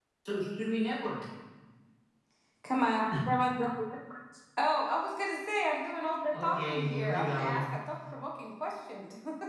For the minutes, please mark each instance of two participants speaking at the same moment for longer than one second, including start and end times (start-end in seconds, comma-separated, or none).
6.3-7.6